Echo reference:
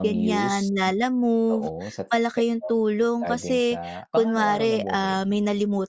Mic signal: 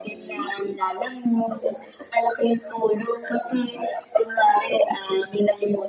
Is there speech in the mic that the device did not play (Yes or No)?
No